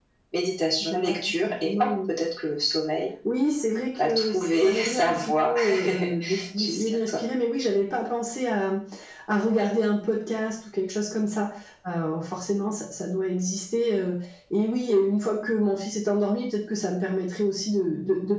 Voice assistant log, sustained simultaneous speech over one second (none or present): present